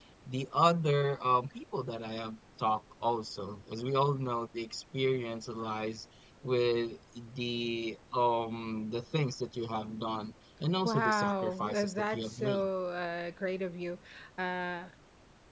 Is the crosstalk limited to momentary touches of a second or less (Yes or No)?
No